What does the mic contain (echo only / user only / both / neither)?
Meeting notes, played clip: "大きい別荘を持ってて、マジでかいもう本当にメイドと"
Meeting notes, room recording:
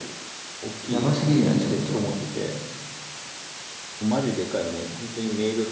both